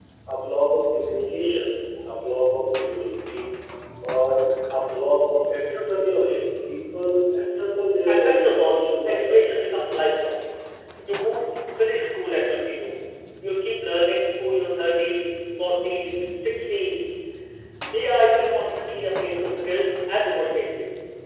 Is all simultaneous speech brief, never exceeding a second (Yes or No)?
No